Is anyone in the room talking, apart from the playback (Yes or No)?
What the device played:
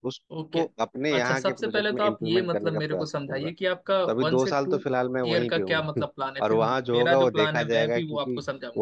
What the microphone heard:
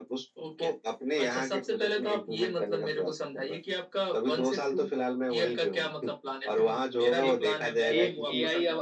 Yes